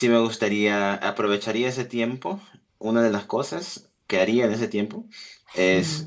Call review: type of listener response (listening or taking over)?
listening